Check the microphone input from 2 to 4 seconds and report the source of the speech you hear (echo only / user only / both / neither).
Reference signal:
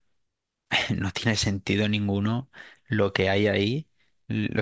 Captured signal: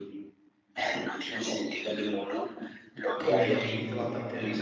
both